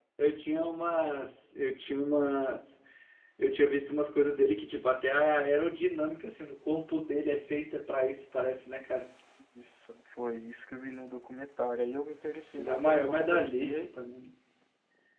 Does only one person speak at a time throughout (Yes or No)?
No